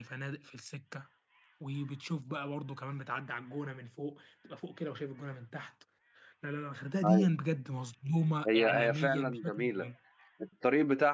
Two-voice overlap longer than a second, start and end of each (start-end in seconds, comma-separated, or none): 8.5-9.9